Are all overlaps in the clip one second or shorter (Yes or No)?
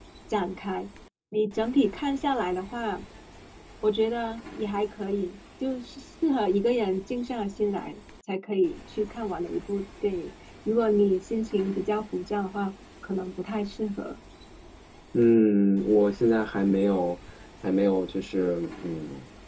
Yes